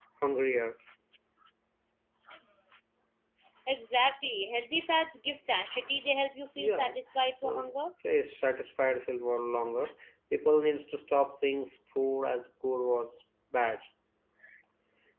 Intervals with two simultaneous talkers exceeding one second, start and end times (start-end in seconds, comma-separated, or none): none